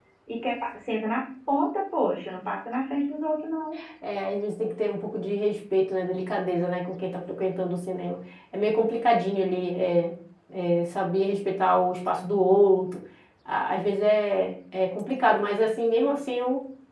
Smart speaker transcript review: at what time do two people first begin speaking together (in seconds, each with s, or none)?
none